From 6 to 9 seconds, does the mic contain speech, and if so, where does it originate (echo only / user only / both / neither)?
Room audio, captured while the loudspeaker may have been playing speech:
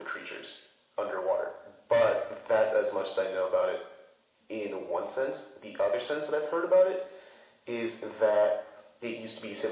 echo only